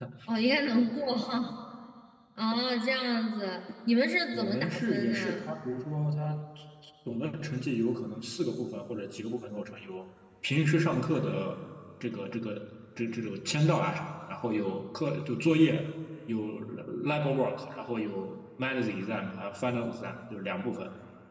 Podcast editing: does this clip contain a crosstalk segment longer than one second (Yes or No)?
Yes